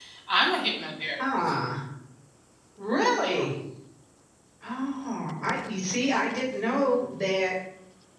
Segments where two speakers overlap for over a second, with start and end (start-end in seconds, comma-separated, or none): none